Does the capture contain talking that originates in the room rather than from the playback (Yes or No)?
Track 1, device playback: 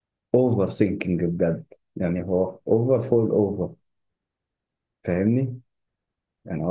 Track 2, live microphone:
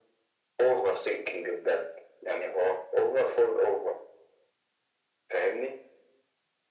No